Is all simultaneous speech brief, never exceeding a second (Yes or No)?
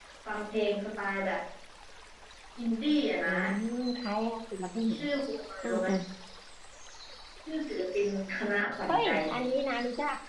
Yes